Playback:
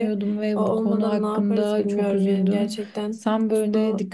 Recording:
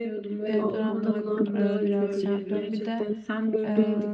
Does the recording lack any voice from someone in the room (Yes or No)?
No